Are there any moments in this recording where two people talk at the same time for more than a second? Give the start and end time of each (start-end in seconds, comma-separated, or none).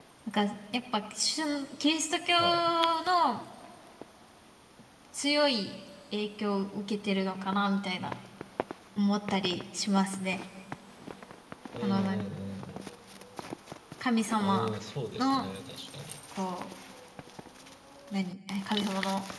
none